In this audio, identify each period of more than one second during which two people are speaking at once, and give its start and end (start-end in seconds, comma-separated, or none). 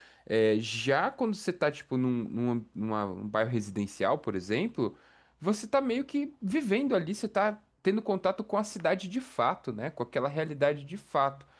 none